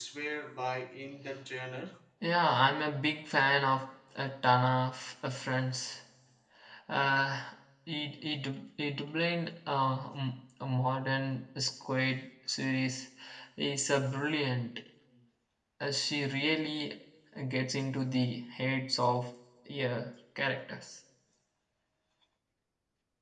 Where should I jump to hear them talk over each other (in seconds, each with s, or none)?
none